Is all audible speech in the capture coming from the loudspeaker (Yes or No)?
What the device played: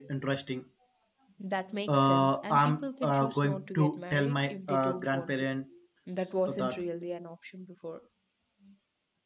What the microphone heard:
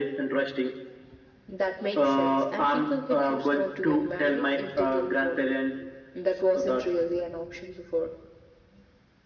Yes